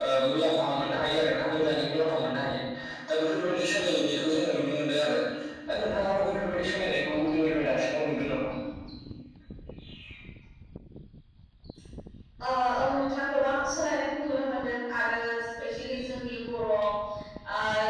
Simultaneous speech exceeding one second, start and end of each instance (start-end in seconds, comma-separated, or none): none